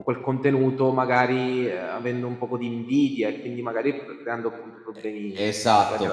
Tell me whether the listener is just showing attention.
No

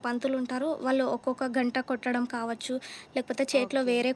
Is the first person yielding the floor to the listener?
No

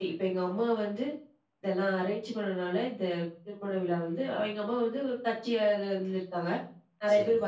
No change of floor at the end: Yes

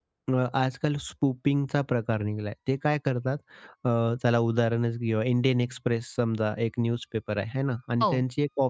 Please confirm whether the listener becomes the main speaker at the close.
No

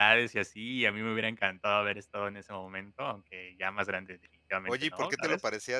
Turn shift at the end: Yes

